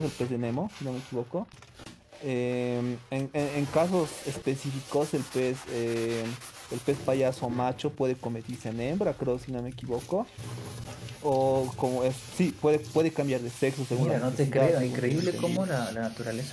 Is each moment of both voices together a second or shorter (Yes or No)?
No